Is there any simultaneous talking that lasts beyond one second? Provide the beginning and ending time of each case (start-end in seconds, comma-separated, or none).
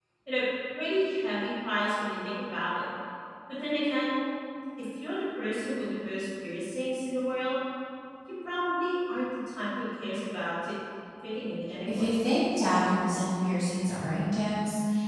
none